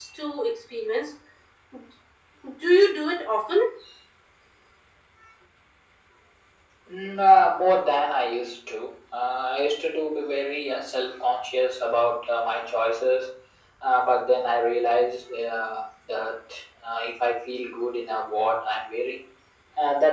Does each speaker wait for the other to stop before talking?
Yes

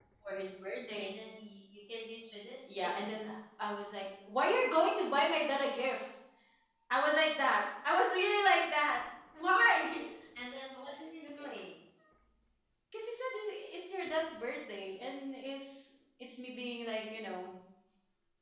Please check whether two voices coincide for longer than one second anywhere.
No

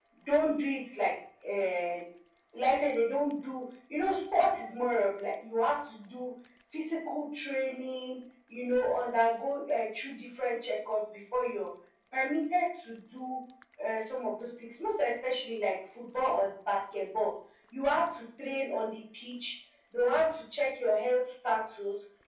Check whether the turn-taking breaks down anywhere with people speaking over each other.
No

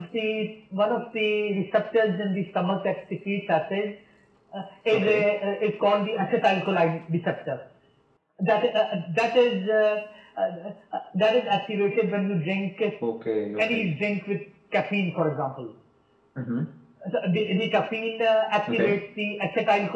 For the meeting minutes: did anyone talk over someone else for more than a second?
No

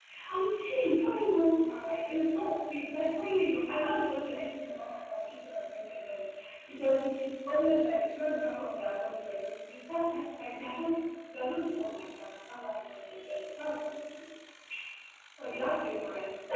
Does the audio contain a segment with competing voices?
No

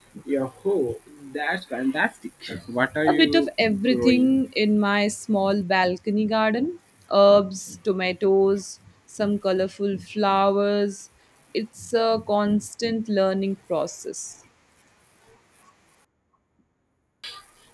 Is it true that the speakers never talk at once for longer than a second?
No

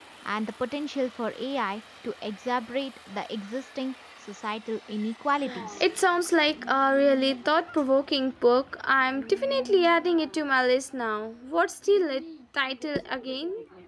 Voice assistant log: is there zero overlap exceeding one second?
Yes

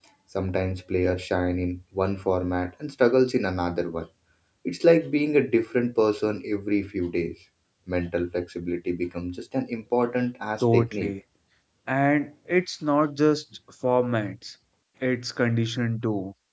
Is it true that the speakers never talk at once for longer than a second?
Yes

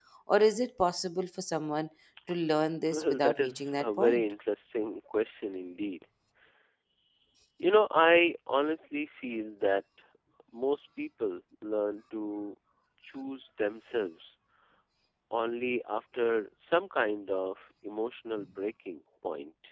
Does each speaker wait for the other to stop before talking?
No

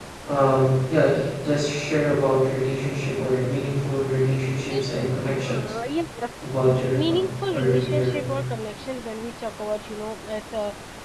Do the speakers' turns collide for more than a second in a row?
Yes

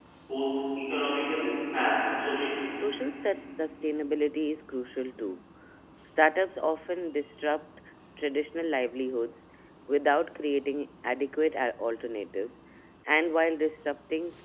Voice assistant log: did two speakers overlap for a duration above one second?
No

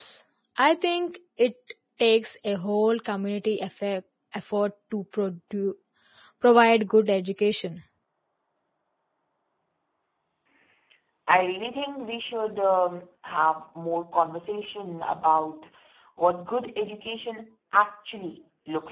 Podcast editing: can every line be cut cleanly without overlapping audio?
Yes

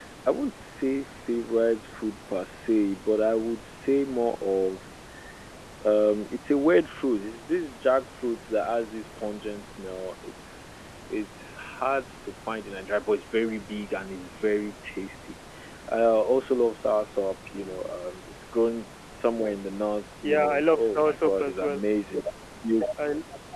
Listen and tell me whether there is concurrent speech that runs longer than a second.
Yes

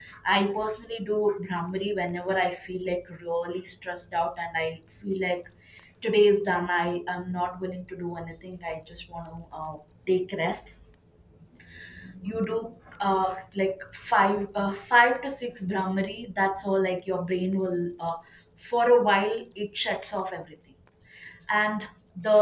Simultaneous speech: No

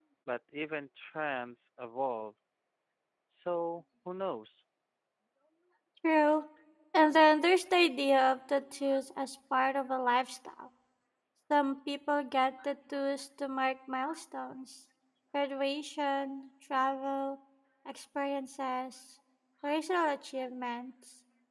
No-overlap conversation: Yes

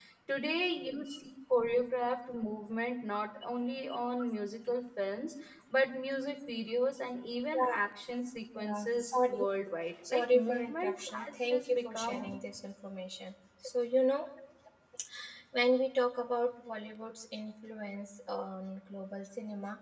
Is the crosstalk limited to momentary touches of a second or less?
No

